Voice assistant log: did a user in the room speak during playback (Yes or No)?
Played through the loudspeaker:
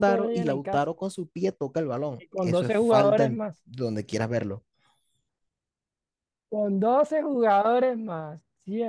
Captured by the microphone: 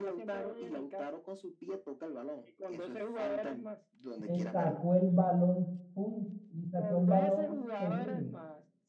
Yes